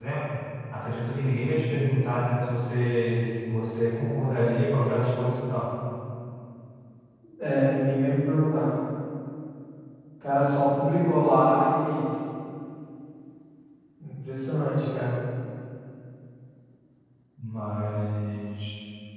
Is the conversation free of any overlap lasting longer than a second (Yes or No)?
Yes